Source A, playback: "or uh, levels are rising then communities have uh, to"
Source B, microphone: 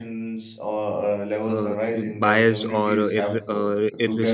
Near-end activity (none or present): present